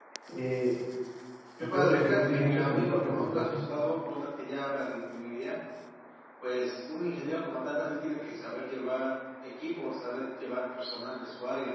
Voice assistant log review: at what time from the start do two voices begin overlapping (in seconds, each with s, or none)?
1.6 s